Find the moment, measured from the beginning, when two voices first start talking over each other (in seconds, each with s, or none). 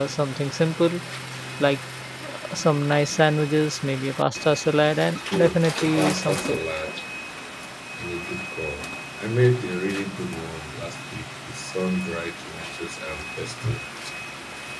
5.3 s